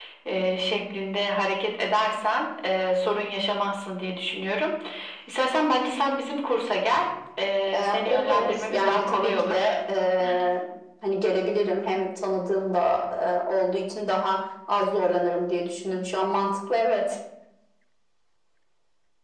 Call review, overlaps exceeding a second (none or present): present